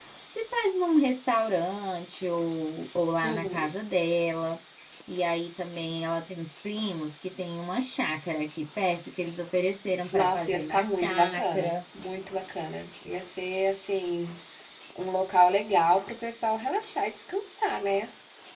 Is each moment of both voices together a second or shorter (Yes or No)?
No